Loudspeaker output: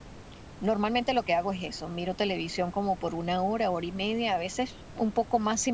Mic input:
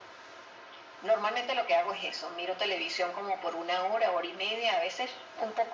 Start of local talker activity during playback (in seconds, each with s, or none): none